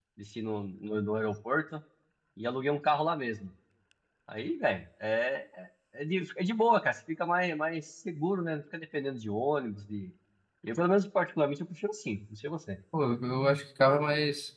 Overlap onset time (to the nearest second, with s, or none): none